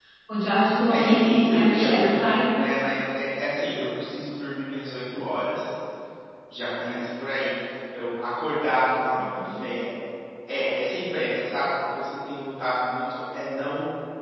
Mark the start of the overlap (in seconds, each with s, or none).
0.9 s